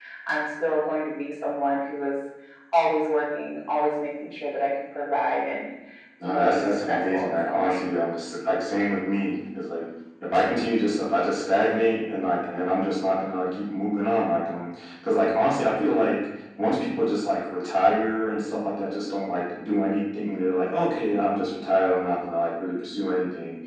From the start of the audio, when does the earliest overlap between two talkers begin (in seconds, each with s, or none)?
6.2 s